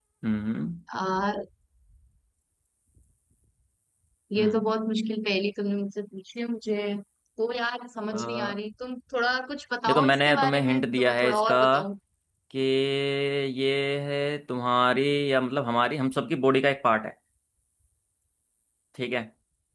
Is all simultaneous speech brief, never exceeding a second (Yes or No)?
No